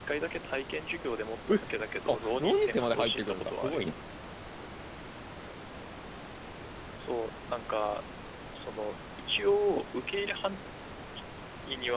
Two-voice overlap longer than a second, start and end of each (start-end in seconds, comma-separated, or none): 2.1-3.8